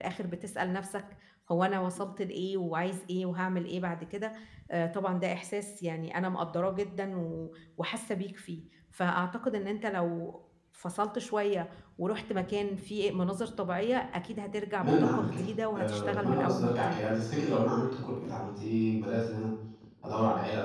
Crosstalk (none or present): present